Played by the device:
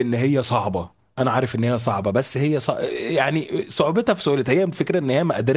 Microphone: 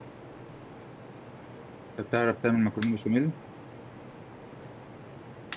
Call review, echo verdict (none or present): none